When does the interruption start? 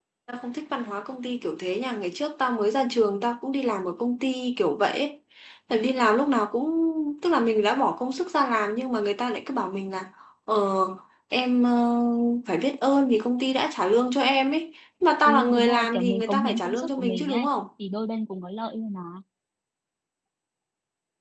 15 s

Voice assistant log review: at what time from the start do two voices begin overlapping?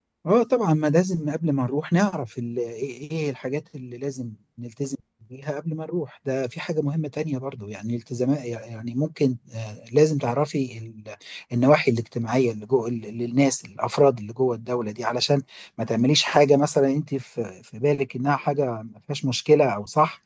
none

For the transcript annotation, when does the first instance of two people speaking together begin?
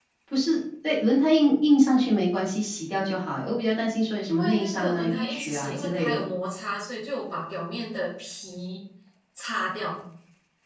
4 s

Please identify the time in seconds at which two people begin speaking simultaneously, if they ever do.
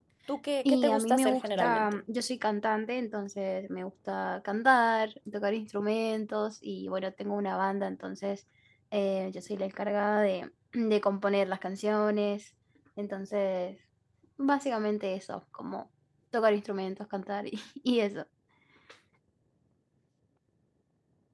1 s

